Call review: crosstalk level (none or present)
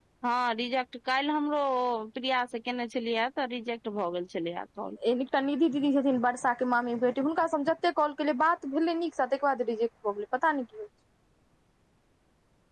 none